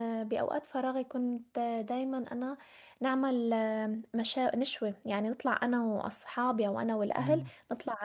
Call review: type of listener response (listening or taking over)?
listening